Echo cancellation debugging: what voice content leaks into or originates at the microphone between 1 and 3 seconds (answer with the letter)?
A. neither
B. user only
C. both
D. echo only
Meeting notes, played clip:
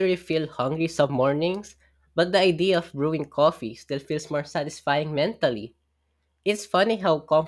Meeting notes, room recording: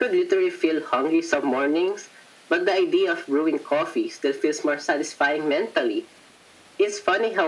D